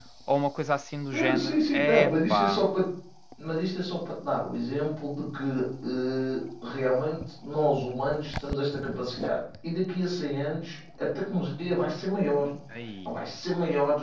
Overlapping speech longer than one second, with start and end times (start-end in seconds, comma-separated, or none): 1.1-2.6